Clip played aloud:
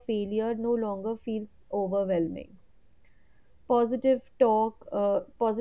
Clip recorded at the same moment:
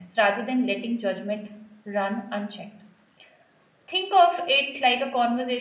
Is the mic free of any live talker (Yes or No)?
No